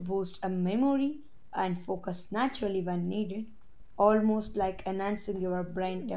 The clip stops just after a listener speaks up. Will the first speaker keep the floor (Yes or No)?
No